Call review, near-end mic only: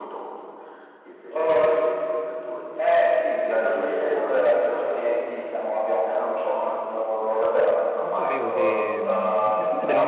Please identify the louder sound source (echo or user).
echo